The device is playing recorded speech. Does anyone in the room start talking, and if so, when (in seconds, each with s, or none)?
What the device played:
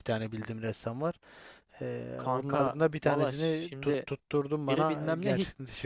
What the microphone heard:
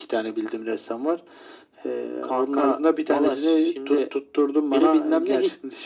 none